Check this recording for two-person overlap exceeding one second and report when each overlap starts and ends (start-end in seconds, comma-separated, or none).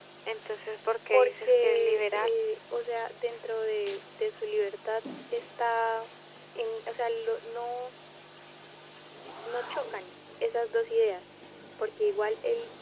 1.1-2.3